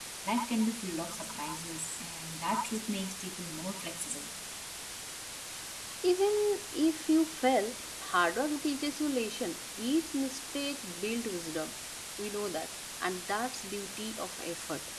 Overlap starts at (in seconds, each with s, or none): none